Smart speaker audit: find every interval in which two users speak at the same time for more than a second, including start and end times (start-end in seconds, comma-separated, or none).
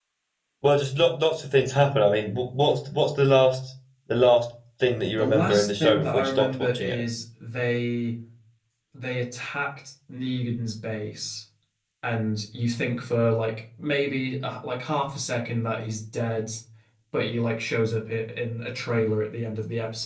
5.2-7.0